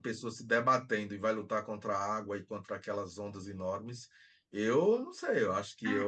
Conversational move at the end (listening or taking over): taking over